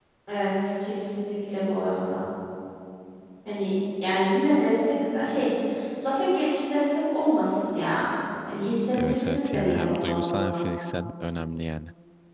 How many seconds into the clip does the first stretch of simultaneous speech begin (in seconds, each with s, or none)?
8.9 s